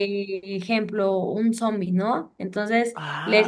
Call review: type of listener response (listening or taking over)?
listening